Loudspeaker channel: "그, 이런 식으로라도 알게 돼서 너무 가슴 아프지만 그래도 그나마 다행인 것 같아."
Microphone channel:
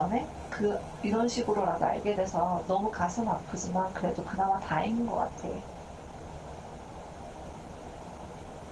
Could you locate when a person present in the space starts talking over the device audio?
none

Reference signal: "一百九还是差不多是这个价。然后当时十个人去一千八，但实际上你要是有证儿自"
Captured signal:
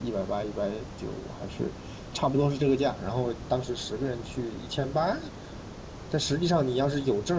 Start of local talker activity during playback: none

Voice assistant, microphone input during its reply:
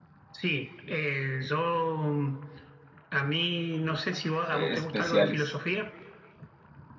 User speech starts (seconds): 4.5 s

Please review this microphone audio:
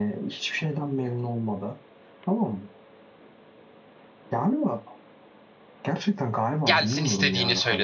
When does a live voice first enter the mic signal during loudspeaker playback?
6.6 s

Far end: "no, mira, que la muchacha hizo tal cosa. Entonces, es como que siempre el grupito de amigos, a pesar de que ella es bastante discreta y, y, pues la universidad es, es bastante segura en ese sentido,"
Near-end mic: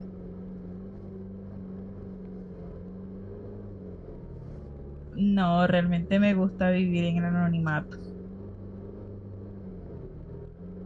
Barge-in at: 5.1 s

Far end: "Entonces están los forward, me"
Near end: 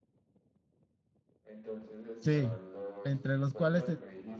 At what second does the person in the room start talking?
2.2 s

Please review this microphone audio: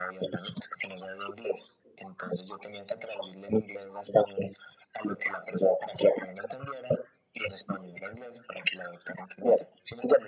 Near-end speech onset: none

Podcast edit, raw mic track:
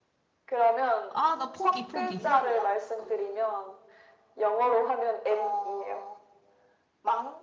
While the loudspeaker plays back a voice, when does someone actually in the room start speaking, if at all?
1.1 s

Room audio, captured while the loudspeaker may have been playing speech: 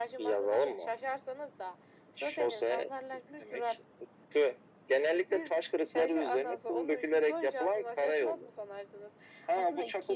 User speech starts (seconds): none

